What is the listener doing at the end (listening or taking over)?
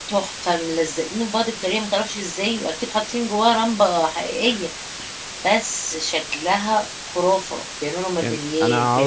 taking over